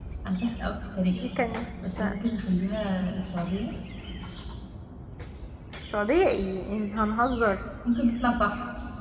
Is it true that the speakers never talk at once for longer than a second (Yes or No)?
Yes